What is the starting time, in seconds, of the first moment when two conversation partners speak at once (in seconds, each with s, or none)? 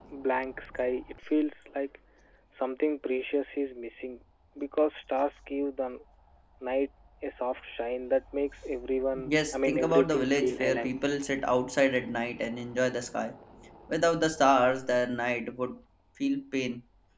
9.2 s